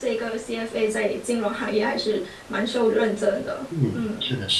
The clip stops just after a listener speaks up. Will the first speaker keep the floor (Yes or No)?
No